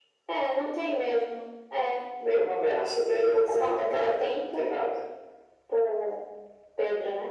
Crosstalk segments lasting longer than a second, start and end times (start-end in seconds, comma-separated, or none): 3.5-4.7